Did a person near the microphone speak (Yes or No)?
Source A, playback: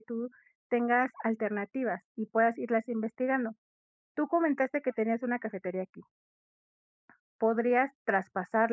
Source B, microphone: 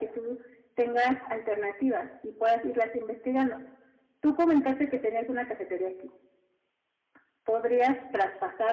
No